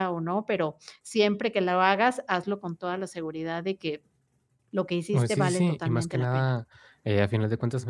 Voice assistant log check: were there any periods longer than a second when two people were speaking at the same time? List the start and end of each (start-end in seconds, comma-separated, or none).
5.1-6.5